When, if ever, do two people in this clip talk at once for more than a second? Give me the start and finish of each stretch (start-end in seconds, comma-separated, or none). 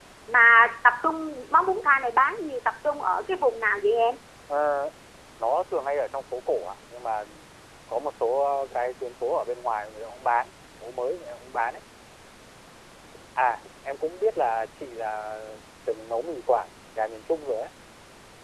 none